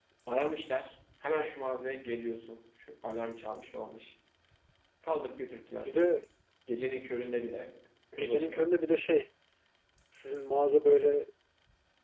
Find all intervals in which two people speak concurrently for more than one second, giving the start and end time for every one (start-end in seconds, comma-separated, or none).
none